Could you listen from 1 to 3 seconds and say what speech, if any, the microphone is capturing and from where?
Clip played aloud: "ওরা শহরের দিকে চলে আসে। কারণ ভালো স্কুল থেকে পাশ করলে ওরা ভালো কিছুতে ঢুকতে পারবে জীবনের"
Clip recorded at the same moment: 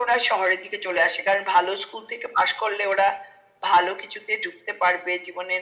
echo only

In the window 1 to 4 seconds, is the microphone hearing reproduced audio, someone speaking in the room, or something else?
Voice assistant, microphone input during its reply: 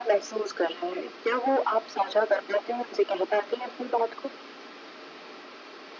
echo only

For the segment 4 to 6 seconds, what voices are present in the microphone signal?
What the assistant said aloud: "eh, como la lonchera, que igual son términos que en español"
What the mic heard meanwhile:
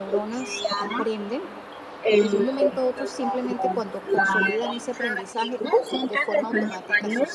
both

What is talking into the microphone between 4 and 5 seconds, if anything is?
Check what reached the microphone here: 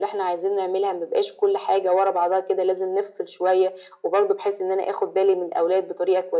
echo only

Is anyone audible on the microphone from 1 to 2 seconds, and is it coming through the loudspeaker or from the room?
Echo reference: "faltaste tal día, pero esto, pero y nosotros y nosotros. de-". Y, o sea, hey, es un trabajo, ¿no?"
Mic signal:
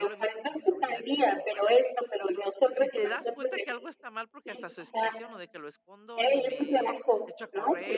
both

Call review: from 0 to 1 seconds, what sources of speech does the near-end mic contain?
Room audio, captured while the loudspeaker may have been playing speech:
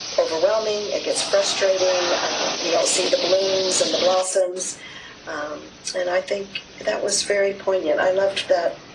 echo only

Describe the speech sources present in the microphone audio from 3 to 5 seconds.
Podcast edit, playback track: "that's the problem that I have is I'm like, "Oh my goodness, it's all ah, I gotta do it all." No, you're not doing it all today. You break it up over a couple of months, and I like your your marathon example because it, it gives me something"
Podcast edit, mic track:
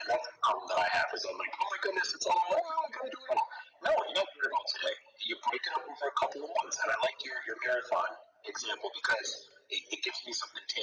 echo only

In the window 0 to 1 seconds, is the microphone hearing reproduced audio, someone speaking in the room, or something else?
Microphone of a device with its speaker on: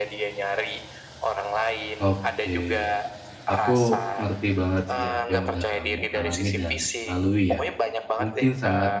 echo only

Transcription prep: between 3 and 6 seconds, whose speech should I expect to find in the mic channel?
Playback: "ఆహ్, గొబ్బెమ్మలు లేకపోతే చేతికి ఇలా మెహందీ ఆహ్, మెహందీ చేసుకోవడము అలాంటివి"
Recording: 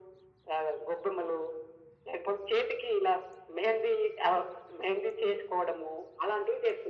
echo only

